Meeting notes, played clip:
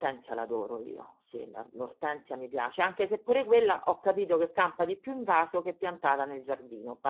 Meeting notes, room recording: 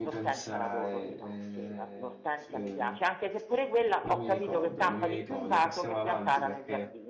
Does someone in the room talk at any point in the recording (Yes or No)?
Yes